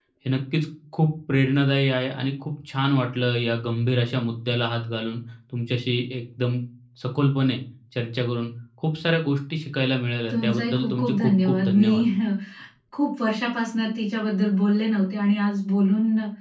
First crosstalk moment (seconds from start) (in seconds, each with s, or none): 10.3 s